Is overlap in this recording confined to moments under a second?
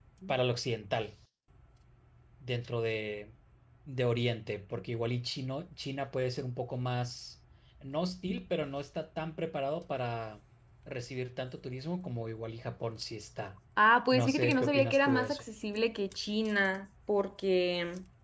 No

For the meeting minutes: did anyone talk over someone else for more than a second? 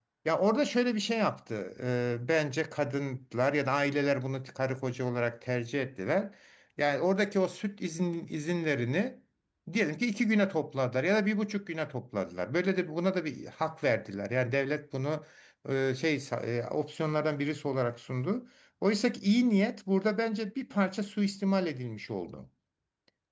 No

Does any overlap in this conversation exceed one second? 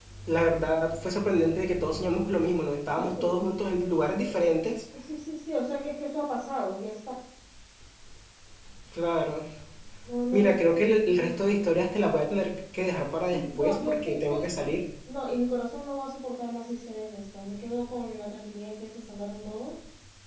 Yes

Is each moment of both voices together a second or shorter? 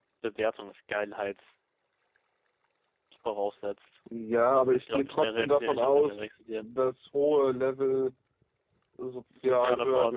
No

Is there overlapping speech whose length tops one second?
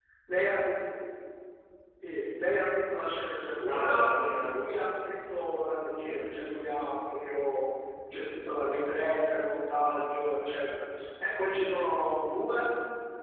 No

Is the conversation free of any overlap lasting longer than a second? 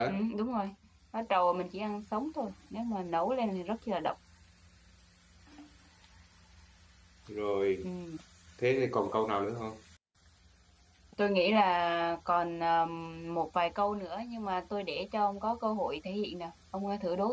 Yes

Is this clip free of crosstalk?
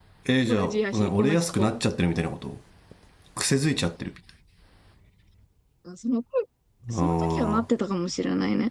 No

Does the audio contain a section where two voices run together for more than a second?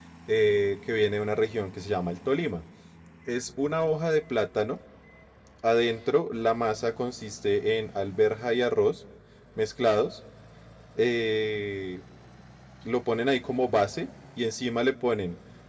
No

